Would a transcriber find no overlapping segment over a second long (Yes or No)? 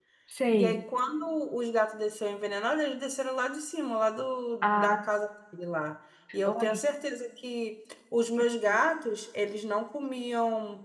Yes